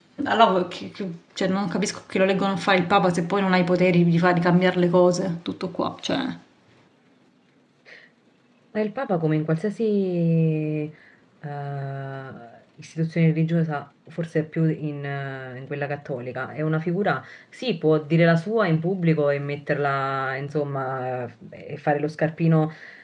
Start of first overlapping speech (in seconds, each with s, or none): none